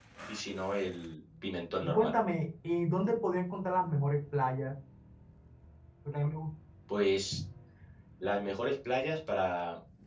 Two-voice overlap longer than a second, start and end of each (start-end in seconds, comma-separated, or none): none